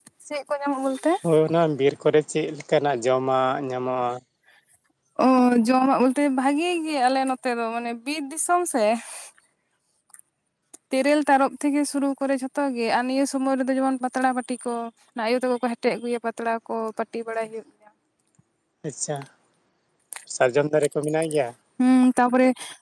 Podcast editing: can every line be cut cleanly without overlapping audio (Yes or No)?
Yes